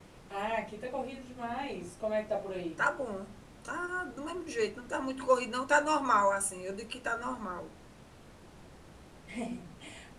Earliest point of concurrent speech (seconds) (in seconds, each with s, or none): none